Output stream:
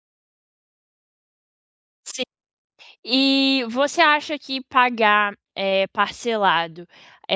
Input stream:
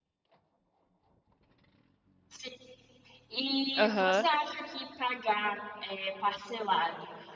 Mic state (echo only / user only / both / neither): both